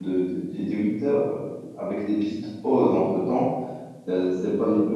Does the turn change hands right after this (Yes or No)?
No